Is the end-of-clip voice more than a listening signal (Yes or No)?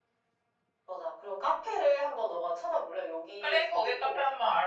Yes